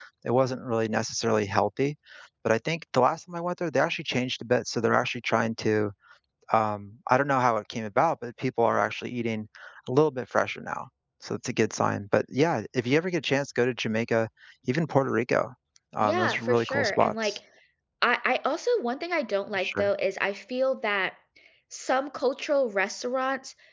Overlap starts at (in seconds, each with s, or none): 16.0 s